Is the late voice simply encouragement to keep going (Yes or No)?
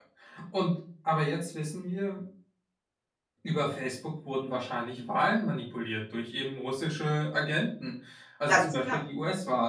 Yes